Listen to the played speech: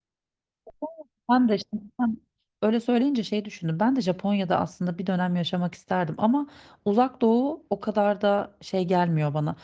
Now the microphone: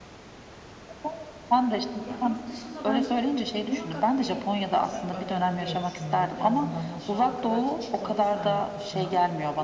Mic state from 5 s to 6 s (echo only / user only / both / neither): both